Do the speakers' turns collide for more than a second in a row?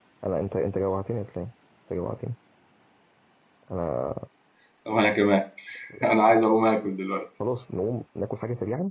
No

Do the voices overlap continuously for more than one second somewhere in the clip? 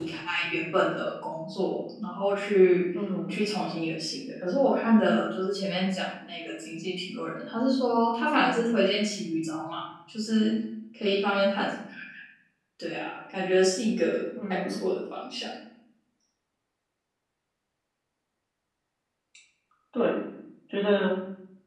No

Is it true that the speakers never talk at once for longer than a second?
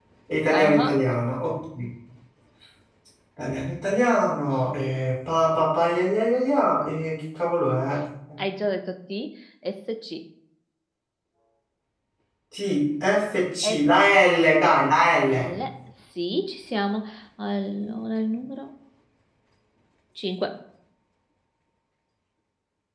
Yes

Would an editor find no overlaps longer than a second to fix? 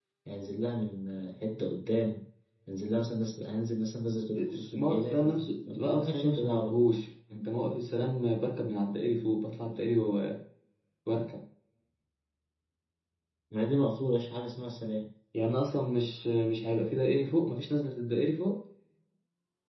No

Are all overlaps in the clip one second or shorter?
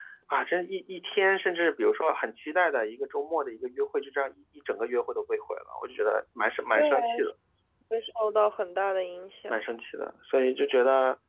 Yes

